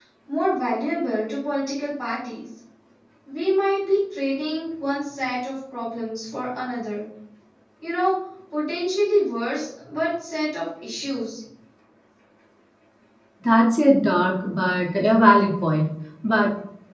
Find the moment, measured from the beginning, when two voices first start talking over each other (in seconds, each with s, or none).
none